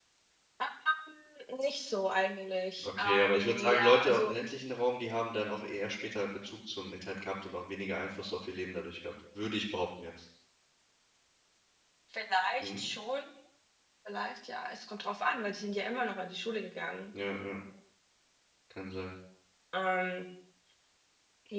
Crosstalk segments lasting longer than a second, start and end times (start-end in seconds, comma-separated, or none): 2.8-4.3